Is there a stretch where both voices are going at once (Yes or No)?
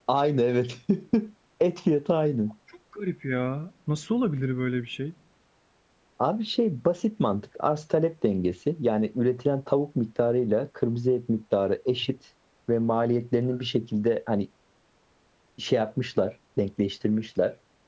No